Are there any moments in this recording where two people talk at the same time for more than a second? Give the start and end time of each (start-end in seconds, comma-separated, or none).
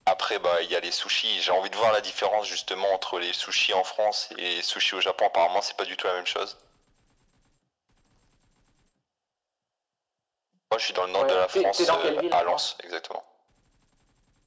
11.2-12.7